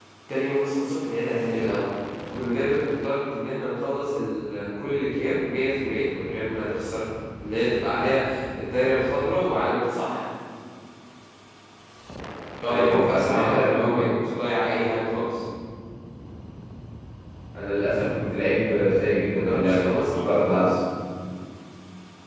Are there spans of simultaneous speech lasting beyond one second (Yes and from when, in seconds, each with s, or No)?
Yes, from 12.7 s